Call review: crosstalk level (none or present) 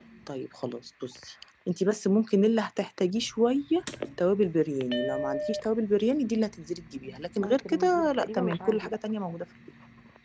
present